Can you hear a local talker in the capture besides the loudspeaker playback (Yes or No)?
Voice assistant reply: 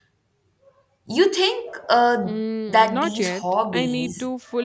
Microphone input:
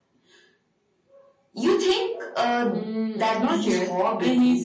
No